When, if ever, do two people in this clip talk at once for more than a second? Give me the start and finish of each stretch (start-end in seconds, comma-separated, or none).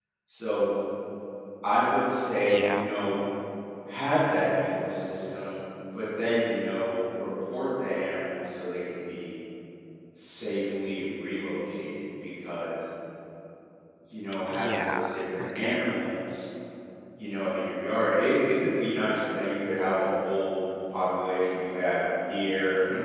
14.5-15.8